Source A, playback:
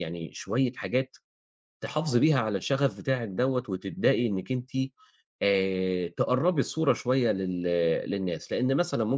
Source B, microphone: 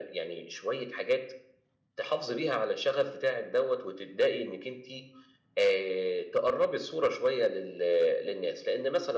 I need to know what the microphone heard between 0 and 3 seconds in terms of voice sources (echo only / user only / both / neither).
echo only